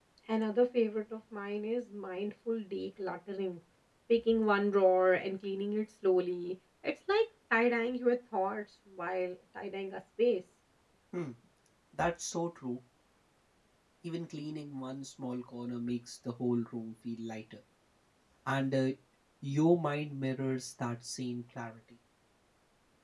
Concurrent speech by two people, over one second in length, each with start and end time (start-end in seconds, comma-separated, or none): none